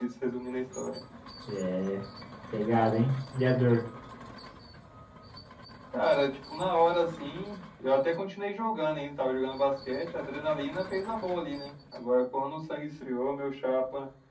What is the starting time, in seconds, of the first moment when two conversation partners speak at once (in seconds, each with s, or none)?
none